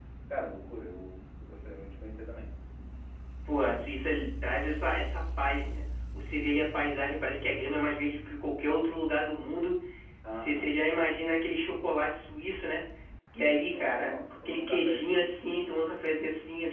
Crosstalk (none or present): present